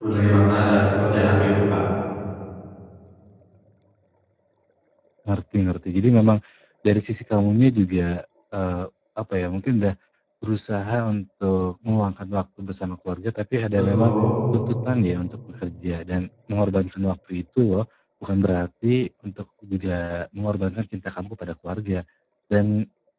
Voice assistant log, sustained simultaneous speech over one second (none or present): none